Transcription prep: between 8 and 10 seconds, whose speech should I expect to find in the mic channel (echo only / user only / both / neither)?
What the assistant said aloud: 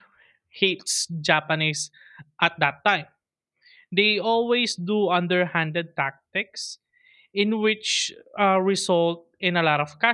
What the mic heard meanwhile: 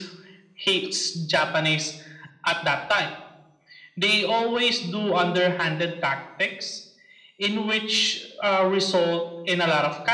echo only